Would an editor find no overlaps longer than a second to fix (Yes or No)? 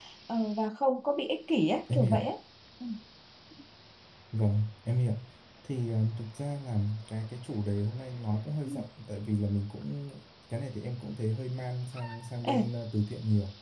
Yes